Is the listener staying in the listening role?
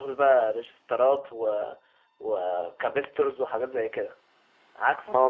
No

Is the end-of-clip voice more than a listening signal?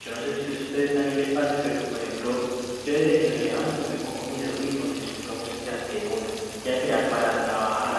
No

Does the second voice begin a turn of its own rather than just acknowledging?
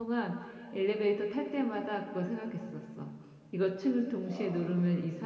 No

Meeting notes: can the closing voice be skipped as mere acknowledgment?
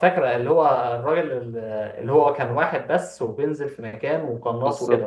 No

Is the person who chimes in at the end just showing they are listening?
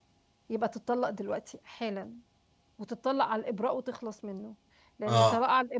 Yes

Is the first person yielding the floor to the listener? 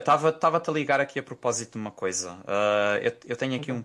No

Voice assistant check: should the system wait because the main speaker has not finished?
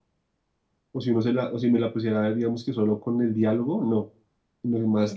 Yes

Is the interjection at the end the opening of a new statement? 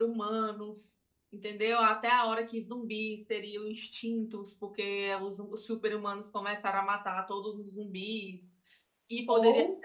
No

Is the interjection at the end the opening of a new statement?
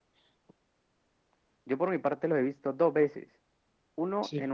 No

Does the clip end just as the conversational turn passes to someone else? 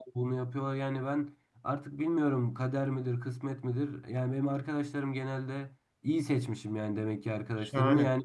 No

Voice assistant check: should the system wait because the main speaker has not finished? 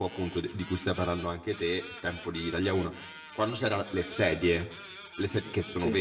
Yes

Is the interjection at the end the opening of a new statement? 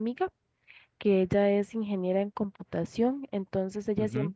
No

